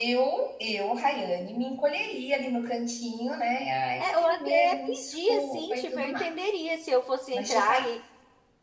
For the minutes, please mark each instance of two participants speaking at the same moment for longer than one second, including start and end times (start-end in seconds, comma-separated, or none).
4.0-6.5